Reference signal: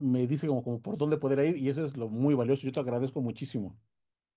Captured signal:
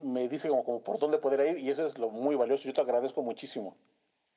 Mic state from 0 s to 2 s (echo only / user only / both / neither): echo only